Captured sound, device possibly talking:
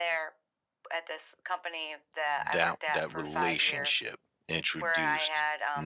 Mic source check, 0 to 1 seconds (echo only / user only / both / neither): echo only